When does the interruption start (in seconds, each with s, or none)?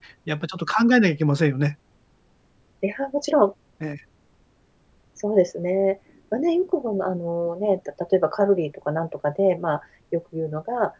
none